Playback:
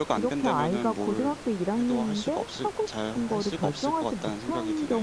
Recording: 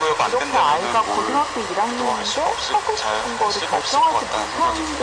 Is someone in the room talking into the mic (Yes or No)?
No